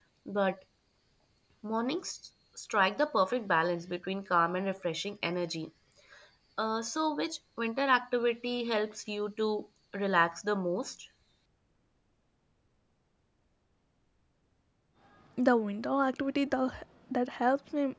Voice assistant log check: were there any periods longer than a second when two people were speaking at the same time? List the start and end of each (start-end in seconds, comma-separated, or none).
none